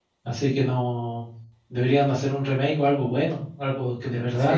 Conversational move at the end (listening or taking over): taking over